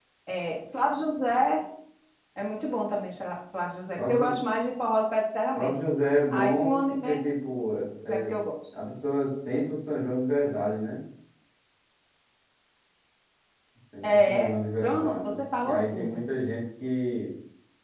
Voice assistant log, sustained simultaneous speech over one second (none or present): present